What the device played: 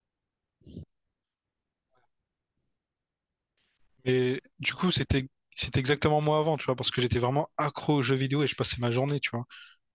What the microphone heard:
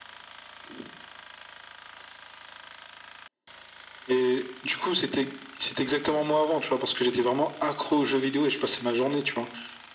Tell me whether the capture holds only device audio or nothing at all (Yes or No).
Yes